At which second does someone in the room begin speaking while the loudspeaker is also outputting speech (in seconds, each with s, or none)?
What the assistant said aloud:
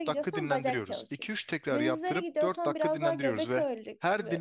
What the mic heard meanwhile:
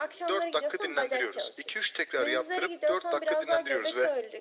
none